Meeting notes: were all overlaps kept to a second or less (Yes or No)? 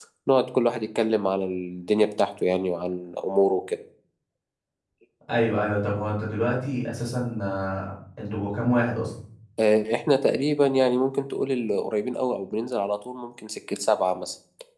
Yes